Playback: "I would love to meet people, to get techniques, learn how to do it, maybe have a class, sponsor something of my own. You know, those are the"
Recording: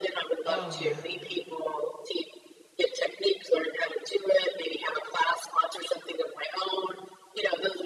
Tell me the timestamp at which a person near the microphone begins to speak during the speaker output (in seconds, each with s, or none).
0.5 s